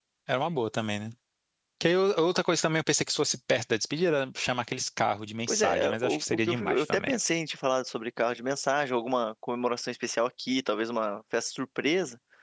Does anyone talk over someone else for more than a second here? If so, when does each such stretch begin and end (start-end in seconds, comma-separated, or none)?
5.5-7.2